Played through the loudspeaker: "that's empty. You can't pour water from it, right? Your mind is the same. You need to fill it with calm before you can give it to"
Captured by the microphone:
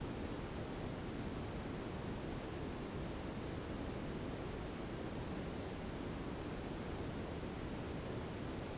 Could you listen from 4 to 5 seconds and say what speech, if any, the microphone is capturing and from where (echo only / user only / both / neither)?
neither